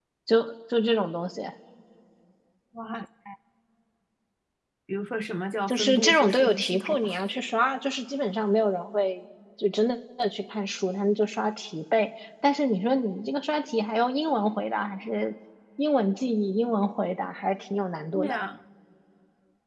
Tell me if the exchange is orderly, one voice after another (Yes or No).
No